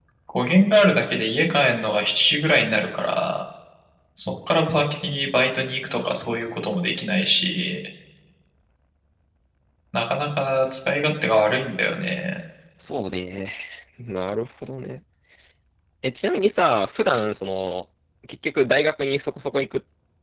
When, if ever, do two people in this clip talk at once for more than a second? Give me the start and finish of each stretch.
none

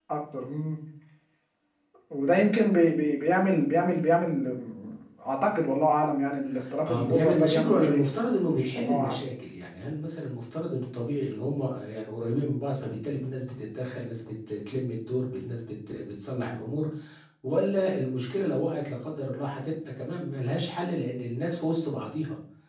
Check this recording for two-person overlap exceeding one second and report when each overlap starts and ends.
6.9-8.1

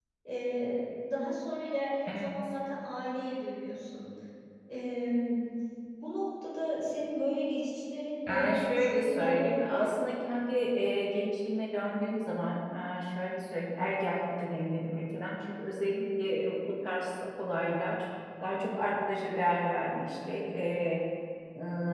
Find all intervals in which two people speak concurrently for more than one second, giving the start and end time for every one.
8.3-10.1

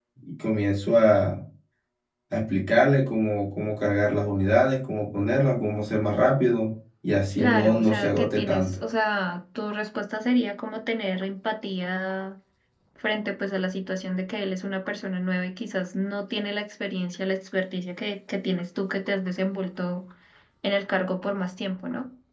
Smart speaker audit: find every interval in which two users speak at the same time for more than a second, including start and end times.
7.4-8.8

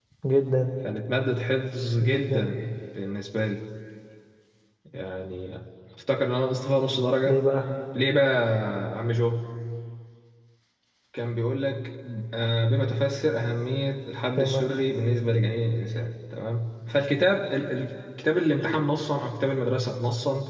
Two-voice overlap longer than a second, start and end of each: none

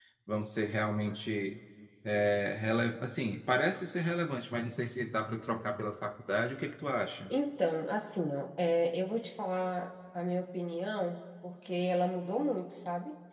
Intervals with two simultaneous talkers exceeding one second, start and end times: none

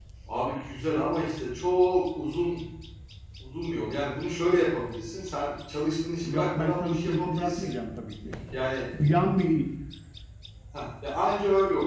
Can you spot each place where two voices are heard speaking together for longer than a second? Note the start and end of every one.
6.2-7.7

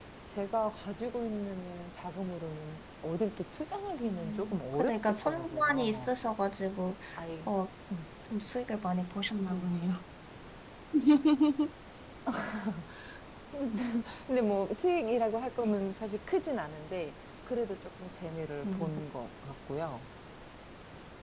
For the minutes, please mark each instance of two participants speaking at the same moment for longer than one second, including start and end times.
4.0-6.1

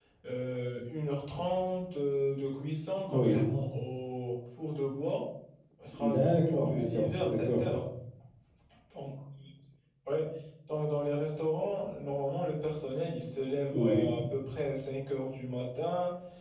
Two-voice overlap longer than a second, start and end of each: 6.0-7.6

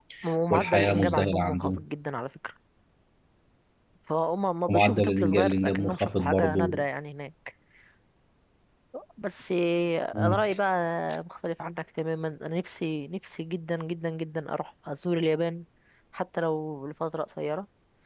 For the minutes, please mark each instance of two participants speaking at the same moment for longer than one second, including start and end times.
0.5-1.8, 4.7-6.7

